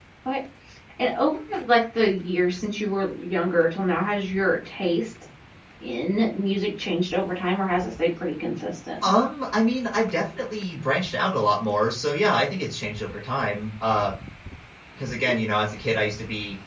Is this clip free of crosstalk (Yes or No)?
Yes